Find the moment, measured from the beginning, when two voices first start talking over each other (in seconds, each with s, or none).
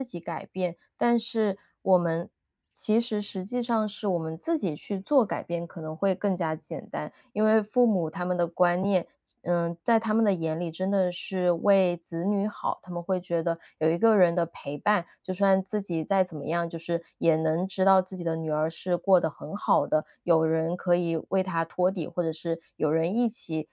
none